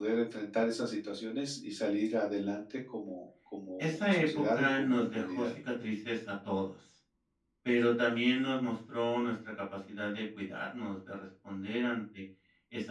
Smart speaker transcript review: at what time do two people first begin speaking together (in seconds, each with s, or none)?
3.8 s